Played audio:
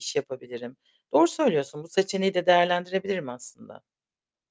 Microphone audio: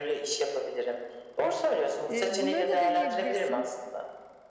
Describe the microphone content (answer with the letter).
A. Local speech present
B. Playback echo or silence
A